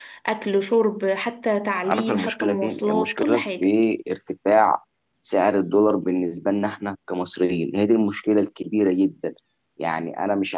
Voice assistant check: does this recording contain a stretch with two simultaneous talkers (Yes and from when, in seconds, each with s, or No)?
Yes, from 1.8 s